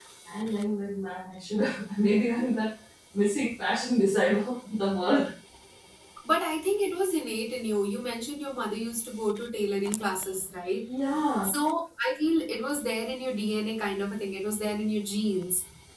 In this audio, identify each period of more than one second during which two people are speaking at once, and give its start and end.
none

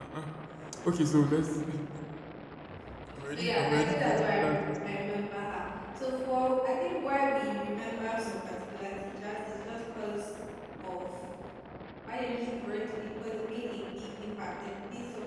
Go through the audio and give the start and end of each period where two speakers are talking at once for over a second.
3.3-4.5

